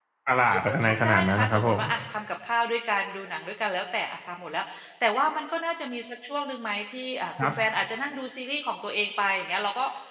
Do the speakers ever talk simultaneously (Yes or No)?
Yes